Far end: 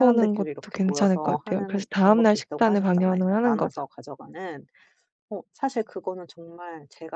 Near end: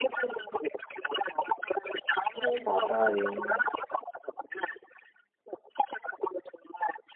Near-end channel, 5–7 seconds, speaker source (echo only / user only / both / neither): echo only